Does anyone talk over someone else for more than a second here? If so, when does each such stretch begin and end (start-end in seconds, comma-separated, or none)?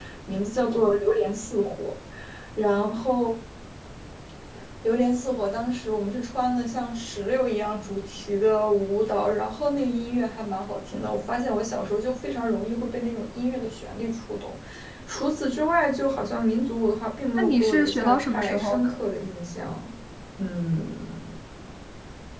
17.4-18.9